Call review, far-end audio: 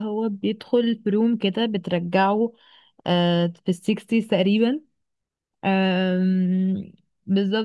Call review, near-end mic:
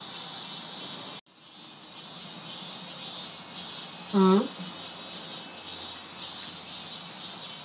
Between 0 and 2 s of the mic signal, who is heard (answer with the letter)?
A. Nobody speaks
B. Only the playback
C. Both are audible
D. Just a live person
A